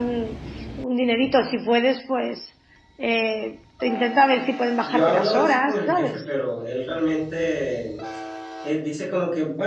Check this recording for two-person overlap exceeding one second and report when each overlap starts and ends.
4.8-6.3

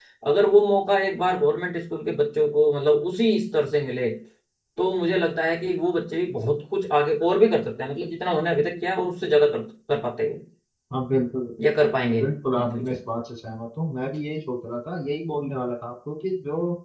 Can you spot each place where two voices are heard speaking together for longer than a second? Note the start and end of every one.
none

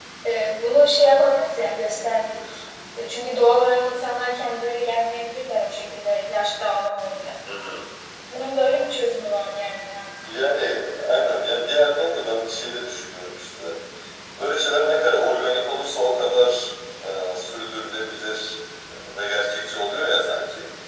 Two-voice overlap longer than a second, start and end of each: none

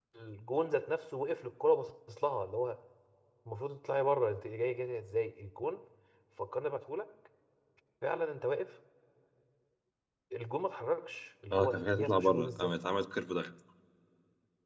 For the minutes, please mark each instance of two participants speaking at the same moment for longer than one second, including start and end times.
11.5-12.7

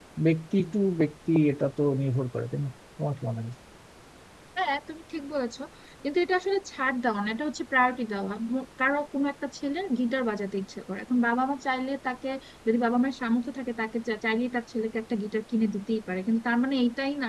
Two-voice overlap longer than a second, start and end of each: none

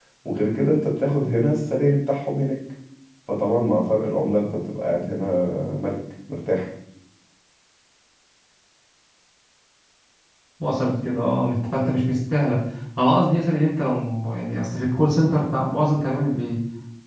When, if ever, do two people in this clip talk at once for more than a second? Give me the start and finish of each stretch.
none

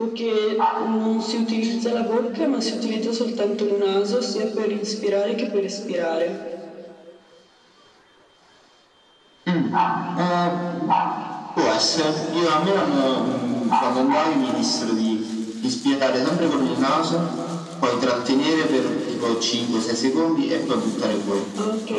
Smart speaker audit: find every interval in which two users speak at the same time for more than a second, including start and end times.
none

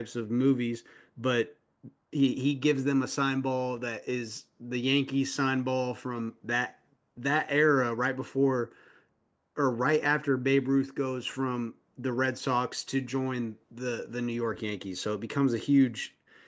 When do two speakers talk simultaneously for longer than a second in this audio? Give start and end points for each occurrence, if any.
none

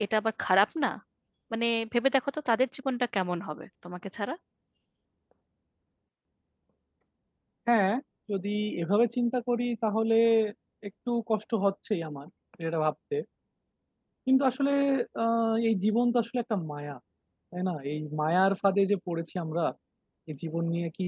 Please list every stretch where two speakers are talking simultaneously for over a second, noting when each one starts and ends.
none

